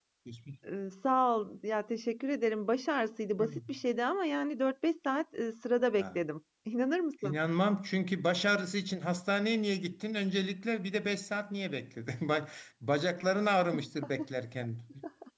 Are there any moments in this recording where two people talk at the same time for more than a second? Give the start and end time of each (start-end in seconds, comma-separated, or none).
none